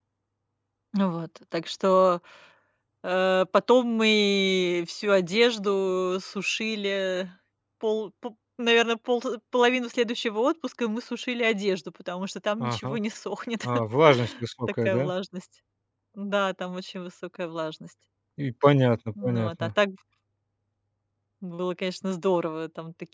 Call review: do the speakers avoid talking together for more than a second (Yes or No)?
Yes